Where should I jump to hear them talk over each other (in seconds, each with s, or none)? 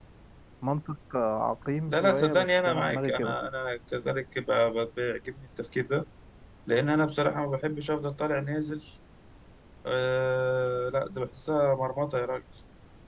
1.9 s